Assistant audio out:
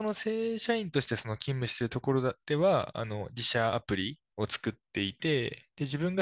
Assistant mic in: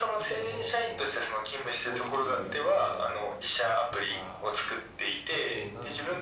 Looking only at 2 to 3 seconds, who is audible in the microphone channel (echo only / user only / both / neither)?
both